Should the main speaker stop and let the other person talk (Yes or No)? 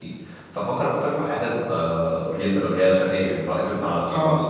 Yes